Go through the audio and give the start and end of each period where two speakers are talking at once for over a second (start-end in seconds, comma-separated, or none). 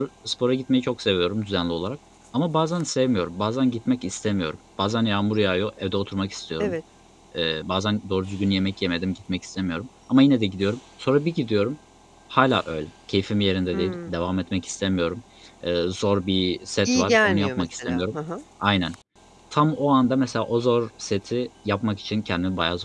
16.8-18.2